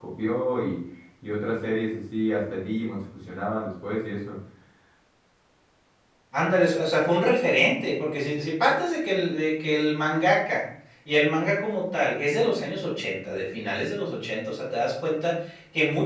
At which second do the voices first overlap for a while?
none

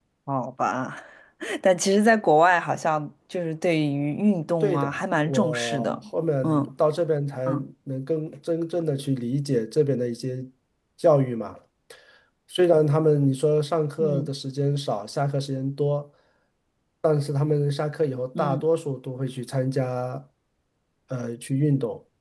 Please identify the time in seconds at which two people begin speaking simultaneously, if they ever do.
4.6 s

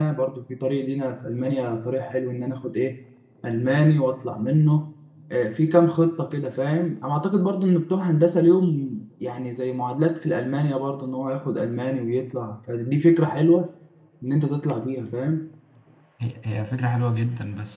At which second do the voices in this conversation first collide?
none

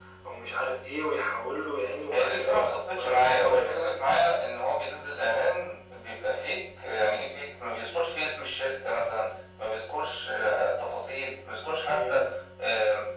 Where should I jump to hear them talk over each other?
2.1 s

